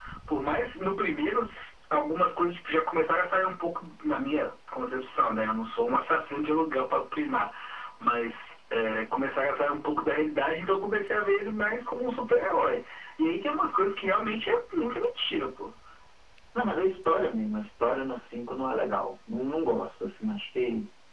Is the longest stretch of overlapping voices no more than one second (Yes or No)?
Yes